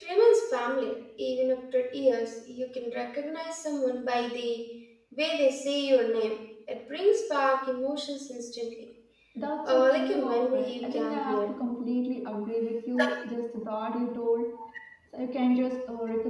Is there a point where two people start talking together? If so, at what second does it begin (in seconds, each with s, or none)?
9.7 s